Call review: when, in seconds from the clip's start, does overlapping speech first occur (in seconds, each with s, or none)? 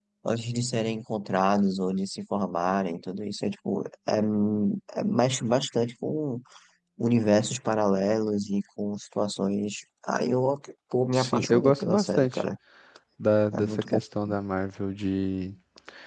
11.1 s